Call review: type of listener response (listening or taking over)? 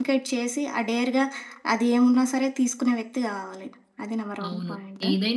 taking over